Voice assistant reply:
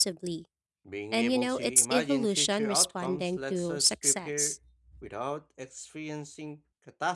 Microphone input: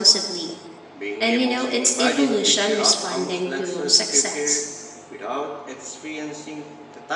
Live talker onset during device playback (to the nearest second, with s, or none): none